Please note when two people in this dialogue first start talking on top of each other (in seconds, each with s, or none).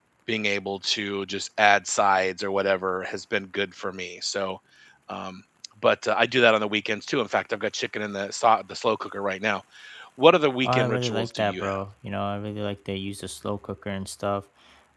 10.6 s